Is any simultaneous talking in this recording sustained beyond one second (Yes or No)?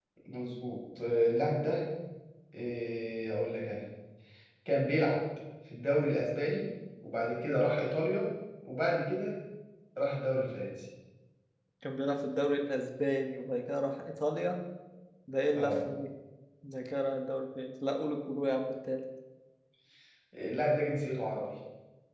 No